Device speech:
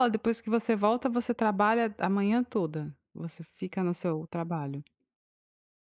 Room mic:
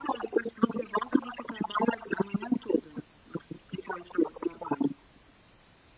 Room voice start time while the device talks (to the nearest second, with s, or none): none